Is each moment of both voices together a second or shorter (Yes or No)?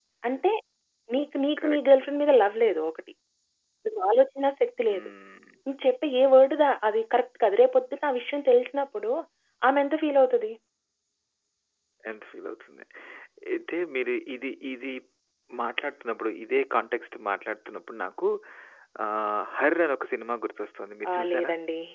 Yes